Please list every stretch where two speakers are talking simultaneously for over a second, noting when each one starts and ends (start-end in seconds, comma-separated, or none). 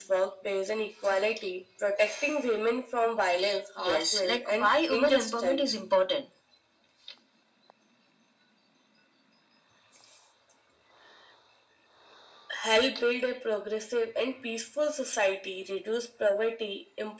3.8-5.8